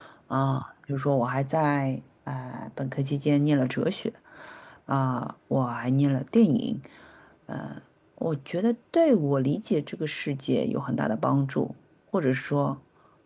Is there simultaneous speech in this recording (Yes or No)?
No